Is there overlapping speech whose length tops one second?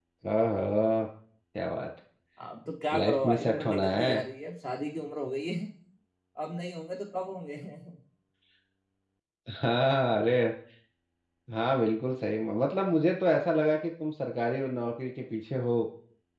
Yes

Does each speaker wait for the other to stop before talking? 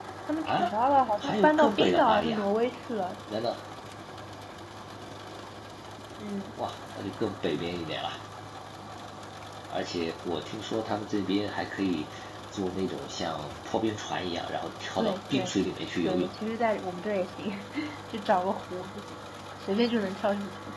No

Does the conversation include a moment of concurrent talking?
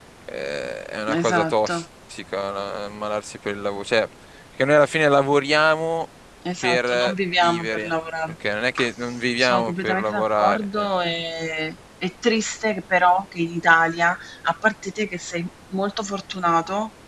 Yes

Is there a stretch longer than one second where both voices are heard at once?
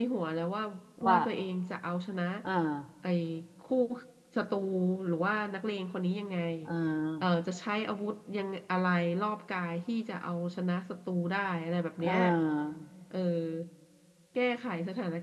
No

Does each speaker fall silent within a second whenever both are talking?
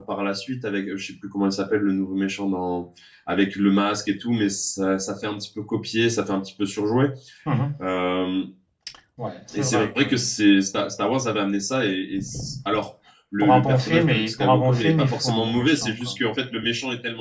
No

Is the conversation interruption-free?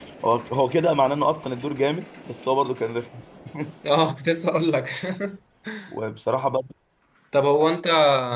Yes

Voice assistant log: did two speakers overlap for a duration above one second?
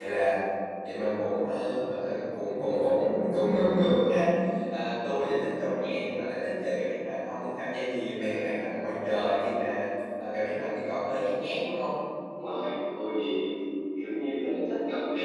No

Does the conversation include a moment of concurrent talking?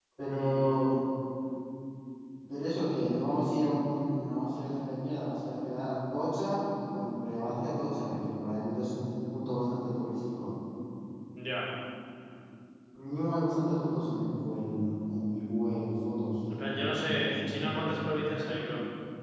Yes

